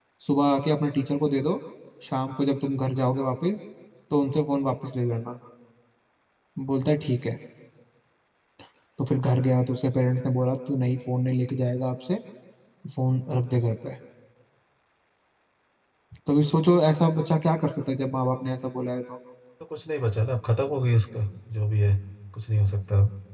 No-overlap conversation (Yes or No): Yes